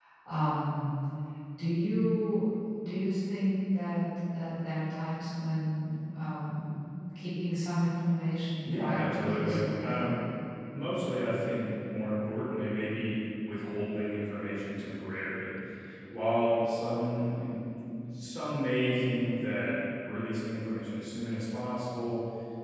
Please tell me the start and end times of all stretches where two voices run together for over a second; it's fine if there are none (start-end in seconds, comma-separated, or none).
8.7-10.1